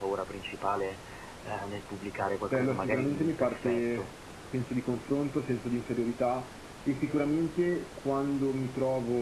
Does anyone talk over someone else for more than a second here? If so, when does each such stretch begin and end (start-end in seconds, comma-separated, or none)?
2.5-4.1